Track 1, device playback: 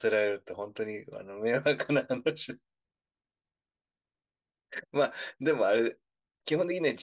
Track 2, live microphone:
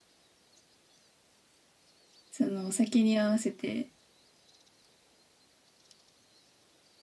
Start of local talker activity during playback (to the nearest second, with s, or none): 2 s